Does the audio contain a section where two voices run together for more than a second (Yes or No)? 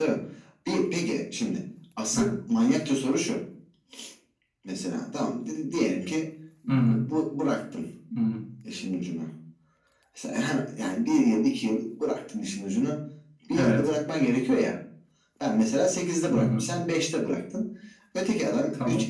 No